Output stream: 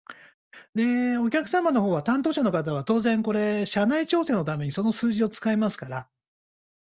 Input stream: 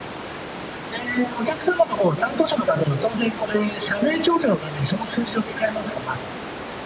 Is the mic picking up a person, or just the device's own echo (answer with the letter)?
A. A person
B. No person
B